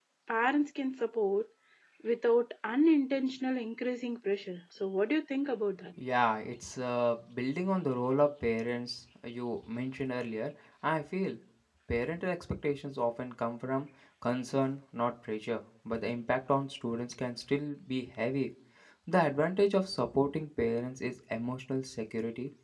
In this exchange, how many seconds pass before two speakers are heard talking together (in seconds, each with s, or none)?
none